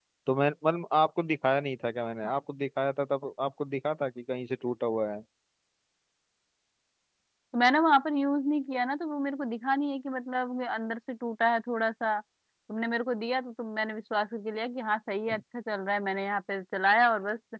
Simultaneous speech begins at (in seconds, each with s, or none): none